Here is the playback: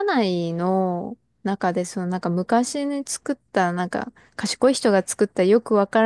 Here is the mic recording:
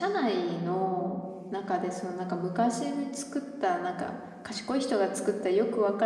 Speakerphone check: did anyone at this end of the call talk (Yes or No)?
No